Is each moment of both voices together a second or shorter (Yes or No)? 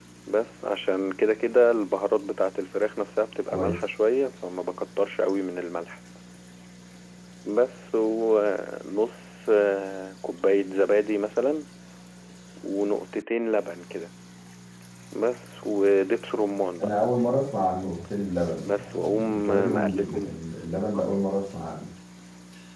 No